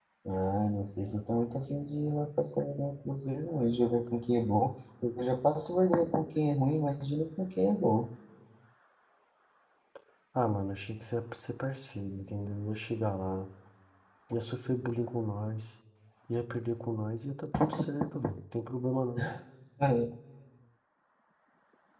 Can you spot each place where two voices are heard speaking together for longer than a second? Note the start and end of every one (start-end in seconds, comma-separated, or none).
none